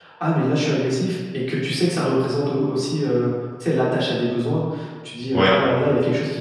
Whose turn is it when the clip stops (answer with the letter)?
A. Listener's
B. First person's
B